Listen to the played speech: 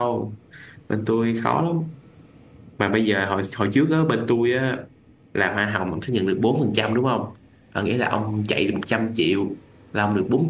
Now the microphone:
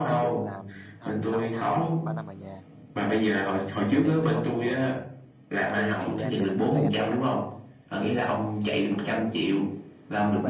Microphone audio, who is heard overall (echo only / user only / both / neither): both